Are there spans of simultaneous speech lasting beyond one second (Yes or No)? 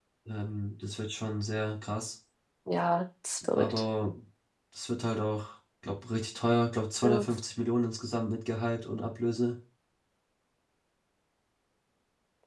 No